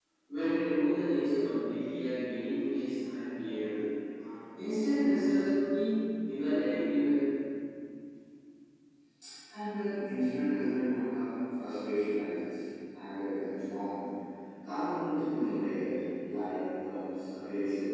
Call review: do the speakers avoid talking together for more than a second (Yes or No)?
Yes